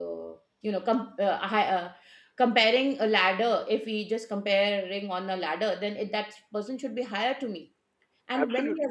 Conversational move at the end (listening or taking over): listening